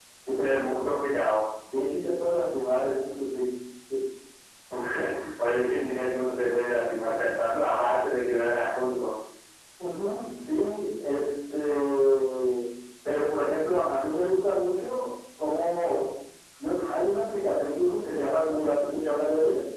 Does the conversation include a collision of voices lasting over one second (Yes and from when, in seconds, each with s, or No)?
No